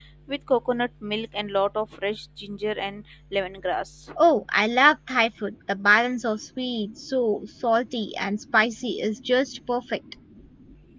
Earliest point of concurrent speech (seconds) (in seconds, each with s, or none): none